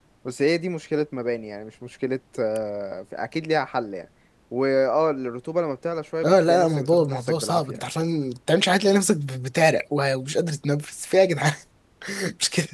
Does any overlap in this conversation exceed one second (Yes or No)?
Yes